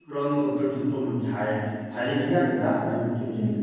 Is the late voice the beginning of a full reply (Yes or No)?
Yes